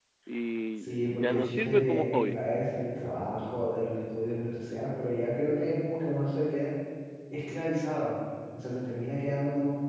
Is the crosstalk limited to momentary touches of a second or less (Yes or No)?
No